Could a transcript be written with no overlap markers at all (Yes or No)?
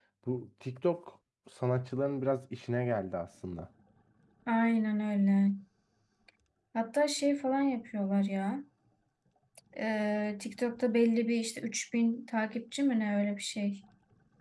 Yes